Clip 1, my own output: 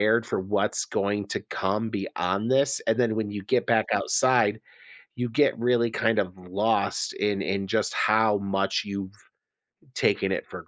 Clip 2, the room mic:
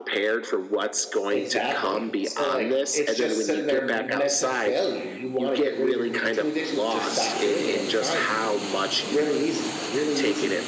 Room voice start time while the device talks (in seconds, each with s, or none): 1.3 s